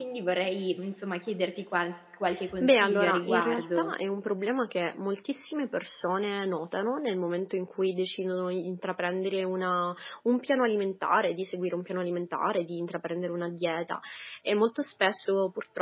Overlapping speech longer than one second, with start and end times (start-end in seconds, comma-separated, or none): 2.6-3.9